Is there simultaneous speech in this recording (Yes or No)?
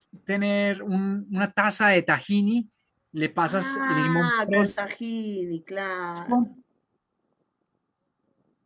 Yes